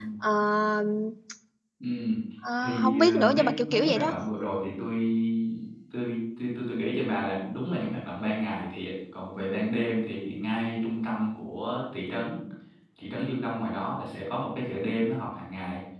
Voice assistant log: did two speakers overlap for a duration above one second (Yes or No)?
Yes